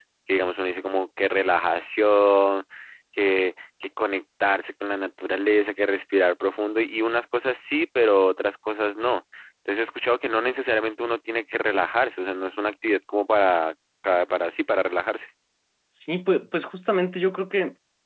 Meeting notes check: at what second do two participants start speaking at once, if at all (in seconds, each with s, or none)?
none